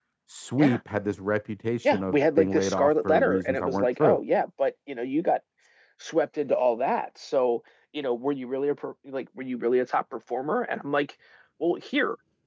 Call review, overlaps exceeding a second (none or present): present